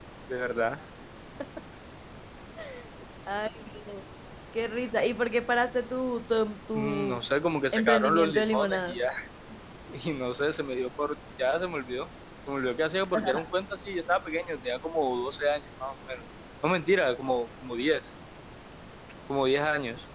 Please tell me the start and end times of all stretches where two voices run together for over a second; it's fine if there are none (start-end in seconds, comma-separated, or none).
7.7-9.0